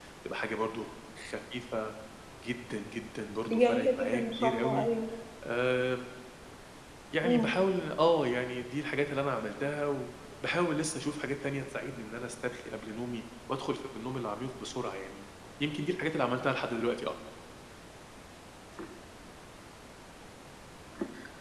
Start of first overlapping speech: 3.4 s

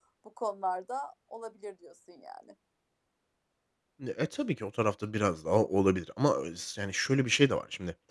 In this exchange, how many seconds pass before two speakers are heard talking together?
none

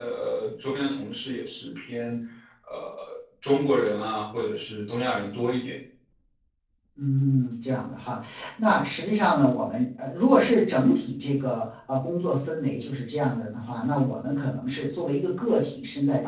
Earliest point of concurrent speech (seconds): none

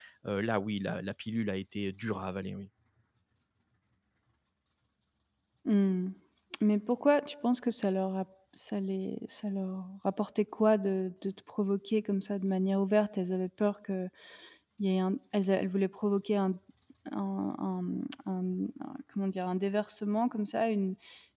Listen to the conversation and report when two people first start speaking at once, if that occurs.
none

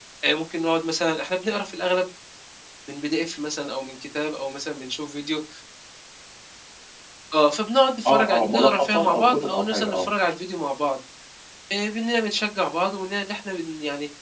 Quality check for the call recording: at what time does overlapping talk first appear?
8.0 s

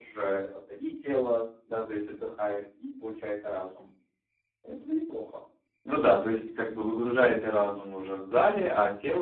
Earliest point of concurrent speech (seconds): none

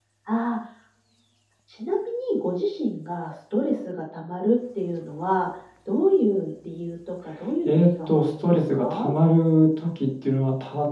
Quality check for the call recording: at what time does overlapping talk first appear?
7.6 s

